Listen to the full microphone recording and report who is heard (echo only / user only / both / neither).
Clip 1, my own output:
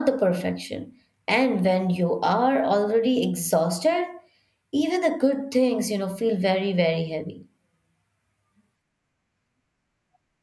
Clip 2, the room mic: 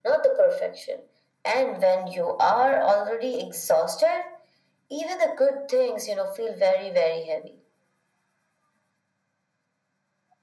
echo only